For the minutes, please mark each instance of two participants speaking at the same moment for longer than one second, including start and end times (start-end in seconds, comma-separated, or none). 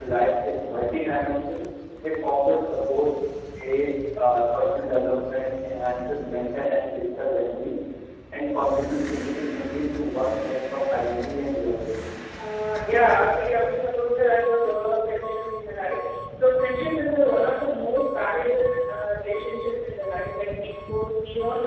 none